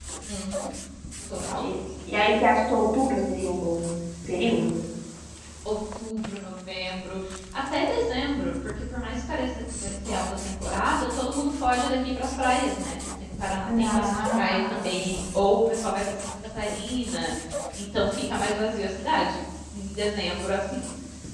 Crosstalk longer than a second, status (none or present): present